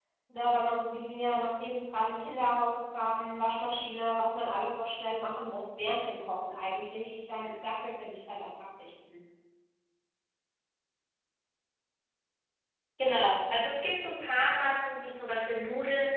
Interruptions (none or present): none